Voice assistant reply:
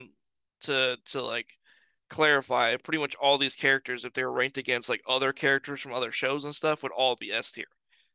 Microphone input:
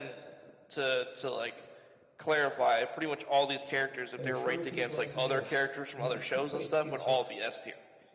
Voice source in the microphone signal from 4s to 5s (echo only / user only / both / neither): both